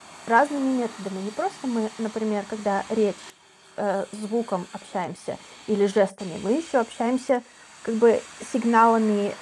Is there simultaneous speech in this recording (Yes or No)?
No